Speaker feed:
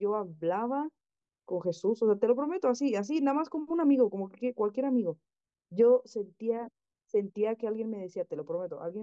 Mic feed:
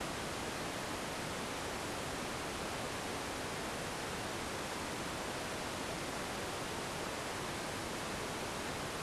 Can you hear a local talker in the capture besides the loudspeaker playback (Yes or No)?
No